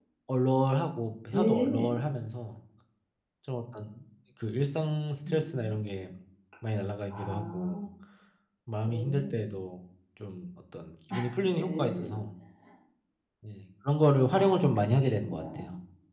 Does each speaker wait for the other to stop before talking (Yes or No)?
No